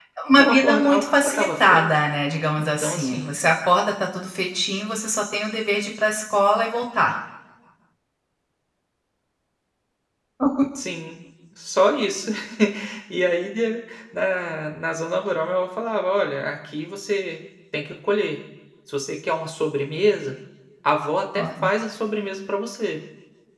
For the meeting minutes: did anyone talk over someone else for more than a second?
Yes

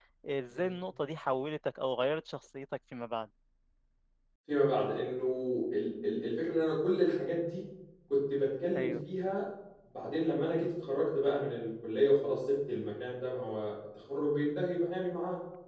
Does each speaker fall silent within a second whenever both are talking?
Yes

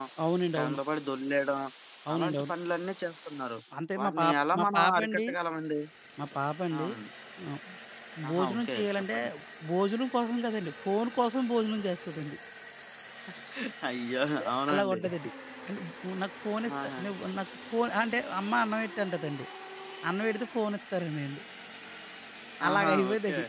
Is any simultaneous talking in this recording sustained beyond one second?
Yes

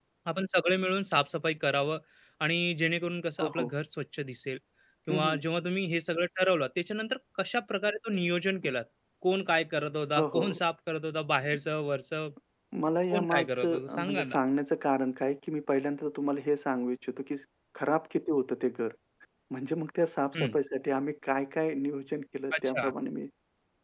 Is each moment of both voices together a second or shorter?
No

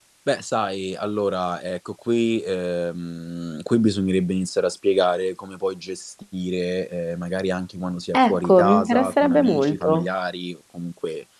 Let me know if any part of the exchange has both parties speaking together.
Yes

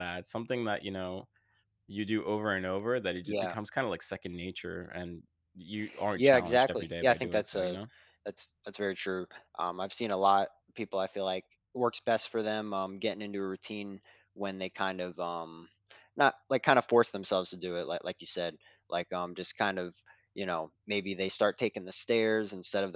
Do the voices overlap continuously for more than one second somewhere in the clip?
Yes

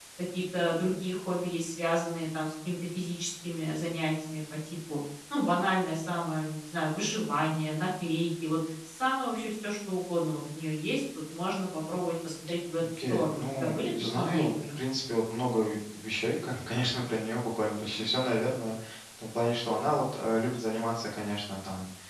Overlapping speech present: Yes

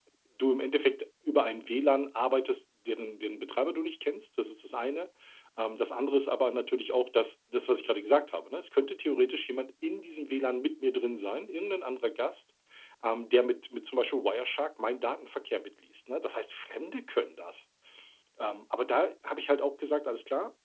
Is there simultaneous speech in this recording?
No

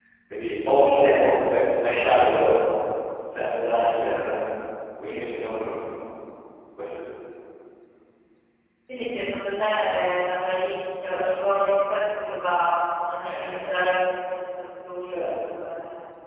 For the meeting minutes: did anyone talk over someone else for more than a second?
No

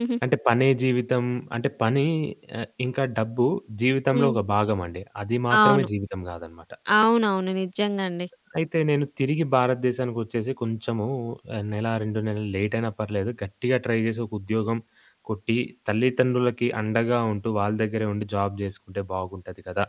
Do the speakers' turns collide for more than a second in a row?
No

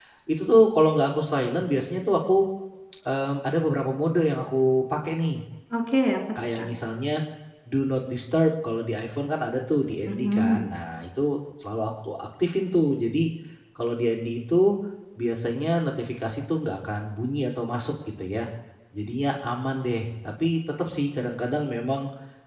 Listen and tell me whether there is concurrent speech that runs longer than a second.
No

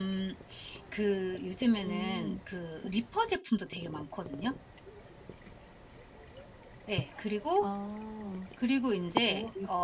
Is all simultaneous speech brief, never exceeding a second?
Yes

